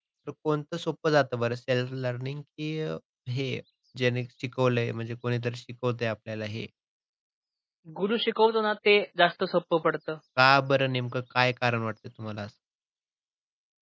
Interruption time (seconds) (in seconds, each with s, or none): none